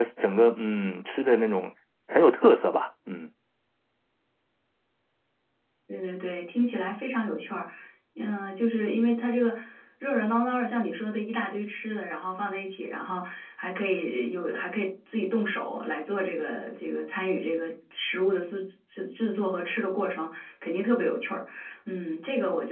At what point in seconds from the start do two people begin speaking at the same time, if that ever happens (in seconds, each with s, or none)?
none